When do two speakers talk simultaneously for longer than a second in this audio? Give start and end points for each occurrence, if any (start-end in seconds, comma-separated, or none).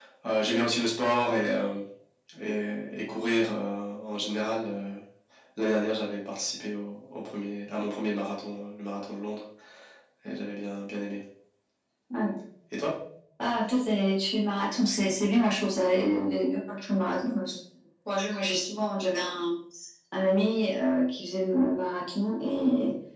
none